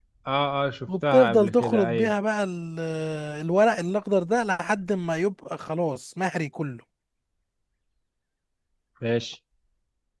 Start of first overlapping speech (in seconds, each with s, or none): 0.9 s